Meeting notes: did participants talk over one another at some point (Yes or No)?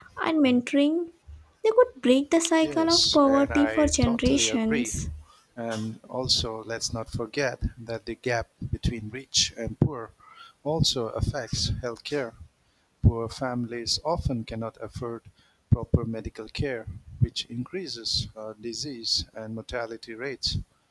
Yes